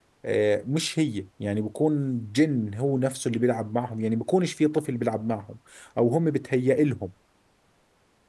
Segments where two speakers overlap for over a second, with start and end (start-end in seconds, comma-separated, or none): none